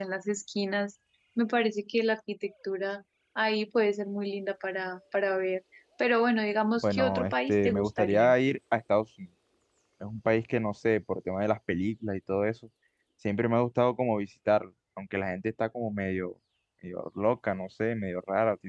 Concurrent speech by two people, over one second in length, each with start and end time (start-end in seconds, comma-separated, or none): 6.8-8.3